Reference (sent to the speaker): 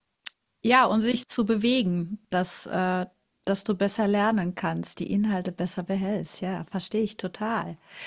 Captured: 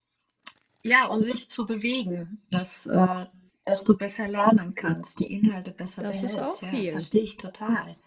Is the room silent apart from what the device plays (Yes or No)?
No